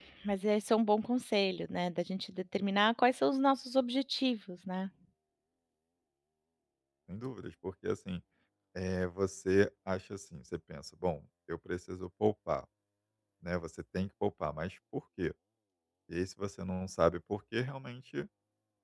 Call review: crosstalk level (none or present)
none